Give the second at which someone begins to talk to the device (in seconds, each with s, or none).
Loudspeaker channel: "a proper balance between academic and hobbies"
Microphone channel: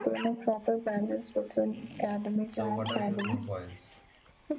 2.5 s